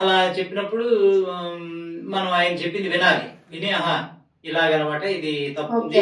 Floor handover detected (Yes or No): Yes